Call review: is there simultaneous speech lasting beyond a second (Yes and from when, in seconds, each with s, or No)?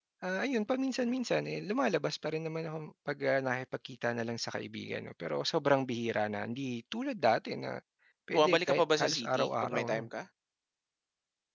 Yes, from 8.3 s